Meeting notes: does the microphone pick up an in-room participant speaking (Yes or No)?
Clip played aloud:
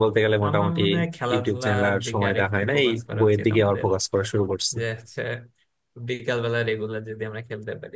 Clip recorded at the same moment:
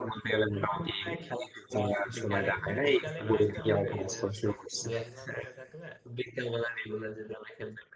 Yes